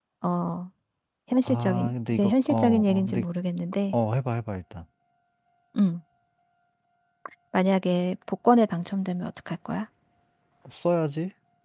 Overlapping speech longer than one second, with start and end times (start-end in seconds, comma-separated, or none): 1.4-3.2